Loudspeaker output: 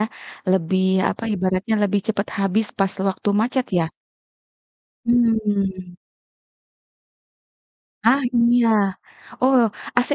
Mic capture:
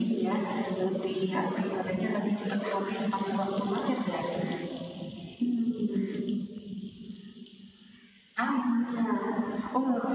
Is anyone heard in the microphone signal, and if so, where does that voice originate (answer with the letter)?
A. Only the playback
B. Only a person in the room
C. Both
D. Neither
A